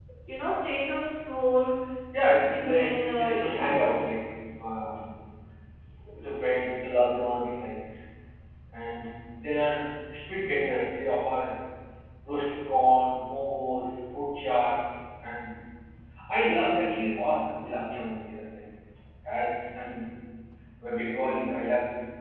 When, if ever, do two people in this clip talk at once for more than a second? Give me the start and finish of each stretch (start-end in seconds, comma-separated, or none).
2.4-4.1